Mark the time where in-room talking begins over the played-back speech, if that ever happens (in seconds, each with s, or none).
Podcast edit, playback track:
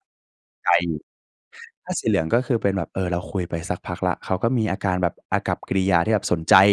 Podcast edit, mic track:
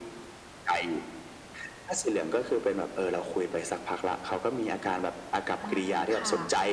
5.6 s